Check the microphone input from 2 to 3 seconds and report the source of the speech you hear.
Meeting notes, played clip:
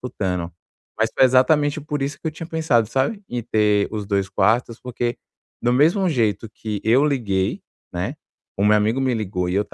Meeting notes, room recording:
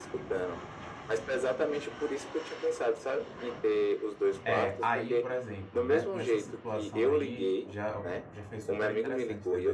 echo only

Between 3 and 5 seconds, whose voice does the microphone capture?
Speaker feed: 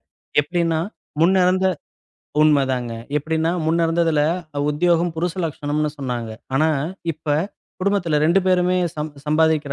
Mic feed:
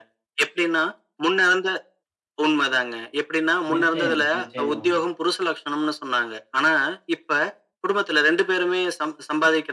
both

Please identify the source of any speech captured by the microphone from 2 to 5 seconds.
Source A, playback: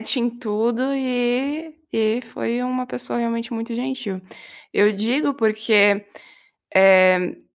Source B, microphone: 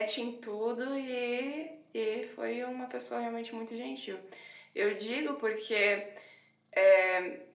echo only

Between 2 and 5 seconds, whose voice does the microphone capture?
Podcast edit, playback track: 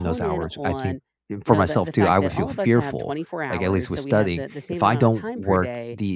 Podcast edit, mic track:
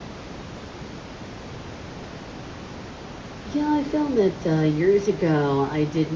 user only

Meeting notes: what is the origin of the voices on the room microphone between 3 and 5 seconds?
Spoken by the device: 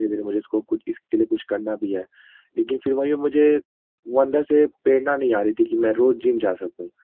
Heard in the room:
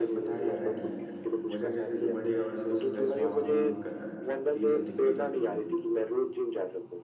both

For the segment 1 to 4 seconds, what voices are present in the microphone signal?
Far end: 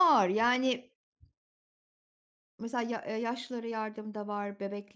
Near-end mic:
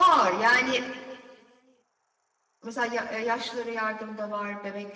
echo only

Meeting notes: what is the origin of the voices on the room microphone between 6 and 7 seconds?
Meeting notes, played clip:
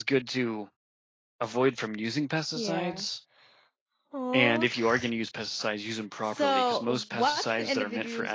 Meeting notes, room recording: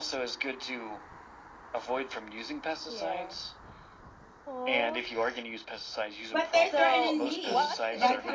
both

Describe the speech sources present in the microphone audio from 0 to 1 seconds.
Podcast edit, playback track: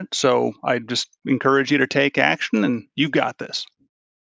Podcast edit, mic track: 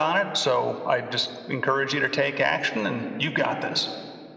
echo only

